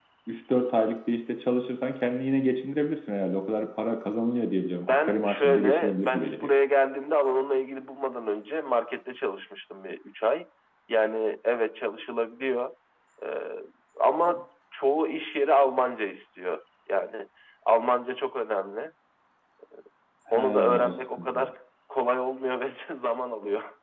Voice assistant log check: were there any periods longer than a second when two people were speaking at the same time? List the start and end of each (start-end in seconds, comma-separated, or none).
4.9-6.5, 20.3-21.5